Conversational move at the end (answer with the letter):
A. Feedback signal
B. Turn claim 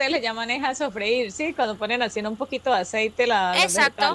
B